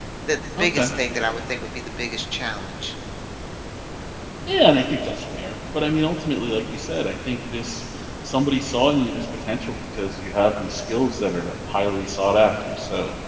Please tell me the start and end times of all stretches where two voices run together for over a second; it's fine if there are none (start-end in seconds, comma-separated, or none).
none